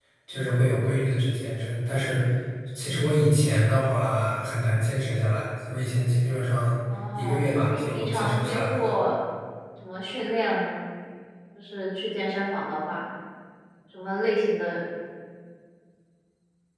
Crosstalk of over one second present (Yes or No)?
Yes